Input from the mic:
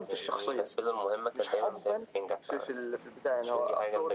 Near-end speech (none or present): none